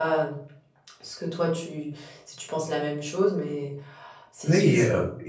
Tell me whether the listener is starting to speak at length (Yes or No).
Yes